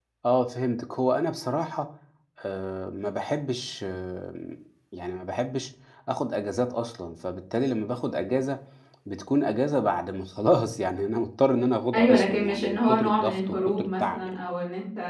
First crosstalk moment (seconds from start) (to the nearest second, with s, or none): 12 s